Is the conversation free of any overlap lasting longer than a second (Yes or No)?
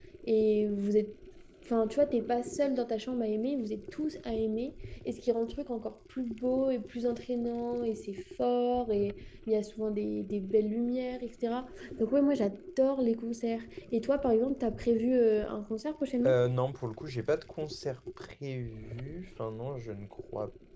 Yes